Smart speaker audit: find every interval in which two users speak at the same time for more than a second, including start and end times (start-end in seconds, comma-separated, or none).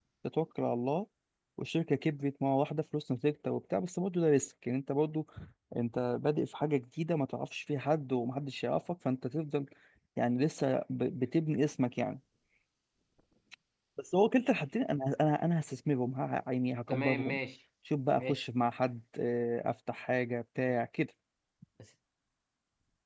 none